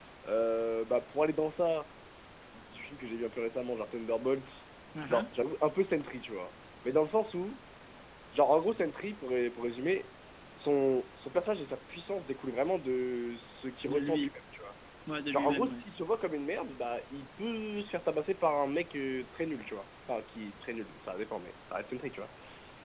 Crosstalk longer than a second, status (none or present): none